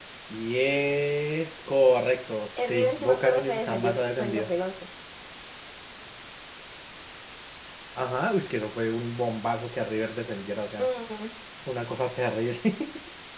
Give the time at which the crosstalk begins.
2.6 s

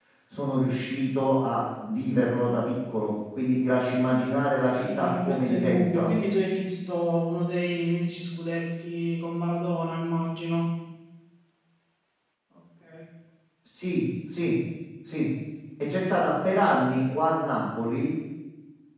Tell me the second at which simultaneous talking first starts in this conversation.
4.6 s

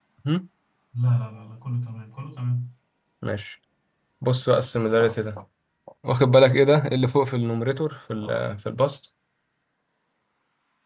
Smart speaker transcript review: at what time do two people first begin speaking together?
none

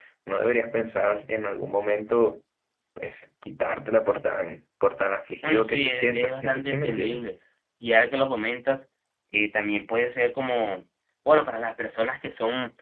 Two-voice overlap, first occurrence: 5.4 s

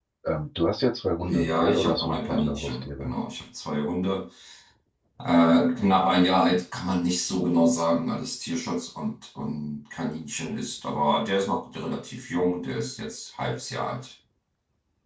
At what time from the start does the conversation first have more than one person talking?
1.2 s

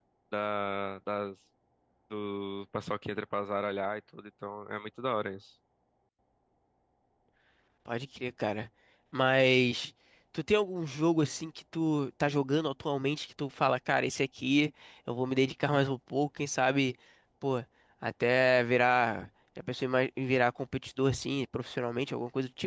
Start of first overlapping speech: none

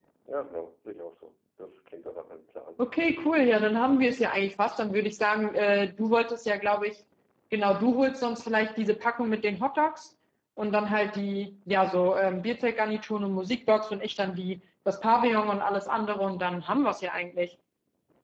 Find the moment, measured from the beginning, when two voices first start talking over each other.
none

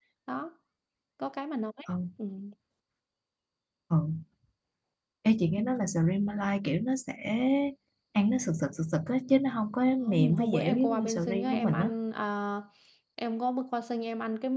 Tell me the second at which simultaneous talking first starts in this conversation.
10.0 s

